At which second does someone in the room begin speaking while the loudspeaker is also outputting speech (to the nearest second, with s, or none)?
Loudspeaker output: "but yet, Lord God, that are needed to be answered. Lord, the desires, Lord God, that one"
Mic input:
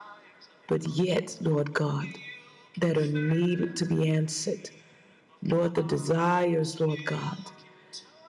none